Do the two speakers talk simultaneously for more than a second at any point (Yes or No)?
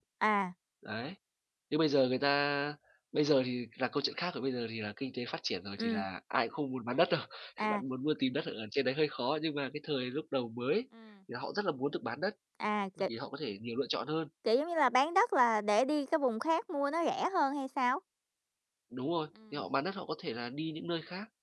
No